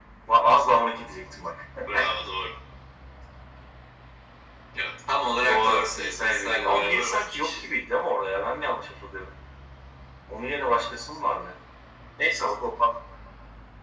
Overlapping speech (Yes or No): Yes